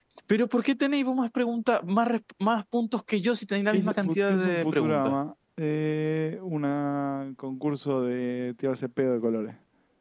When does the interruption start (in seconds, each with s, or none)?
3.7 s